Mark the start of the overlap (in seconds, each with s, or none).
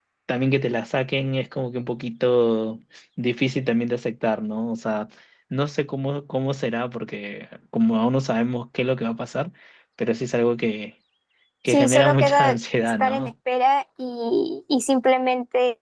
11.7 s